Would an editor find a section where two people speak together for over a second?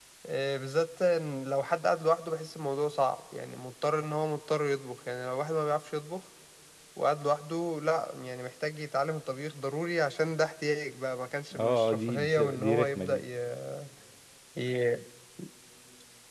Yes, from 11.5 s

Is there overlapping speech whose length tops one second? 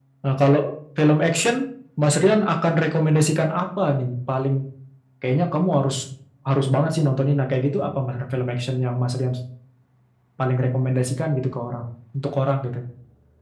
No

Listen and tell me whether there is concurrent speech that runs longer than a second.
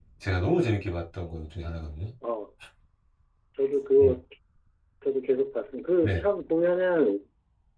No

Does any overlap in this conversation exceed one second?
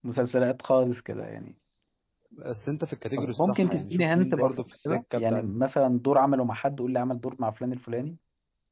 Yes, from 3.2 s

